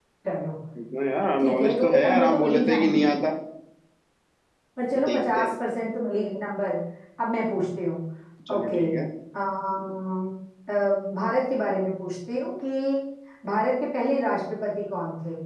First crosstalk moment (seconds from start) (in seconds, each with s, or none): 1.4 s